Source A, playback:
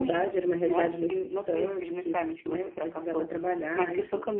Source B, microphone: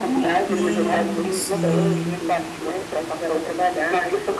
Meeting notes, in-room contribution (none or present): present